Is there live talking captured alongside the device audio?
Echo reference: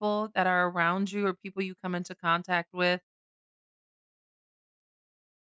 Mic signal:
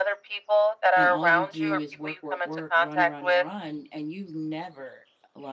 Yes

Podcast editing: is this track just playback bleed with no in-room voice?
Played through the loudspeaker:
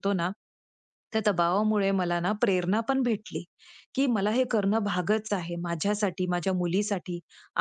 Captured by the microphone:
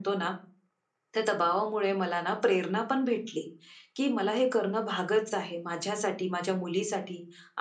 Yes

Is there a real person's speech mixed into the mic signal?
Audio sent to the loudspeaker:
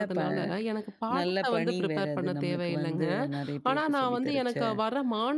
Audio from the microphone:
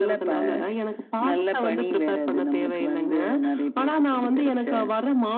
No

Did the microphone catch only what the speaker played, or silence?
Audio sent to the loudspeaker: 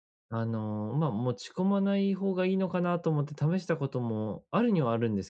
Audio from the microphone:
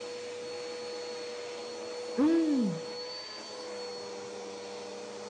No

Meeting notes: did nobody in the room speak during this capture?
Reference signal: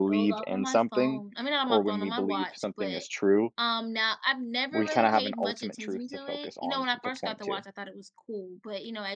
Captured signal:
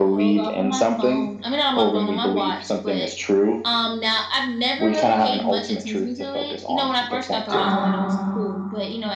No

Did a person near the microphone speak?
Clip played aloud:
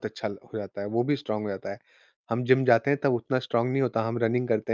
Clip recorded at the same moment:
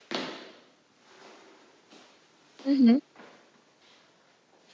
Yes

